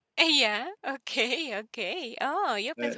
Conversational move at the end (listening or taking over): taking over